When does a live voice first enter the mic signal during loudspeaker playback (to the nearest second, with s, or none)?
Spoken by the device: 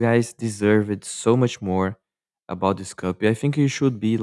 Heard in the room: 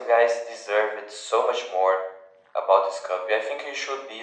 none